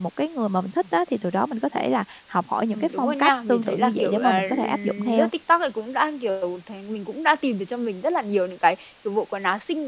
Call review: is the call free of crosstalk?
No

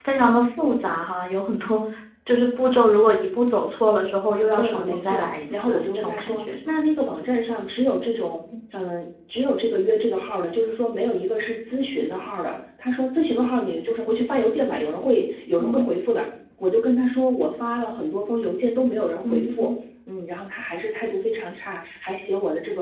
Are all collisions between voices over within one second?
No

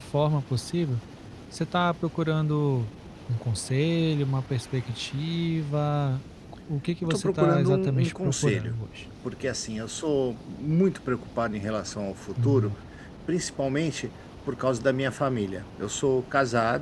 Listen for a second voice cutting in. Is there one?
Yes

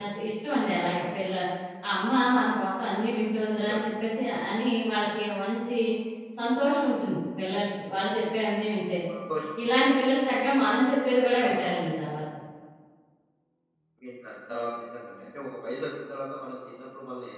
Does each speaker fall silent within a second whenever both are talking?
Yes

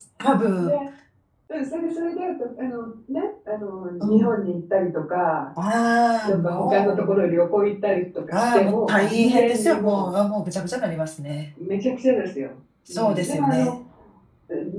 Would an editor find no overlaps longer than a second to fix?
No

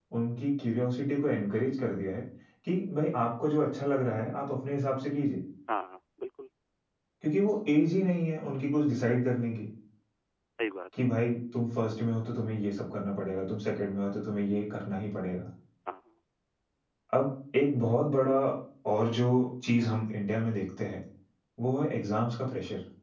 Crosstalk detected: No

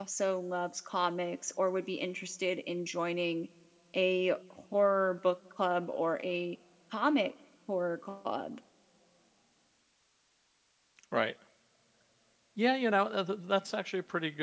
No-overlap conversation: Yes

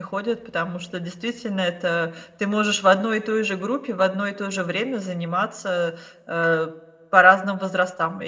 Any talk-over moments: No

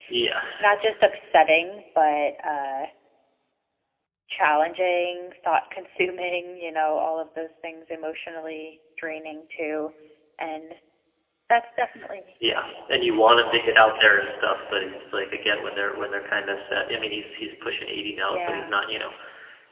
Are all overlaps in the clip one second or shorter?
Yes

